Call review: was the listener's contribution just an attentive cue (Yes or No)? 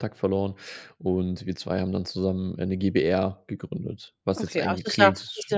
No